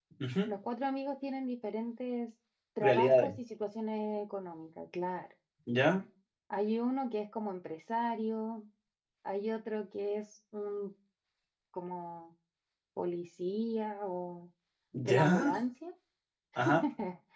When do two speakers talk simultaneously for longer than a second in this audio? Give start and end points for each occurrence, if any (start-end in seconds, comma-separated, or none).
none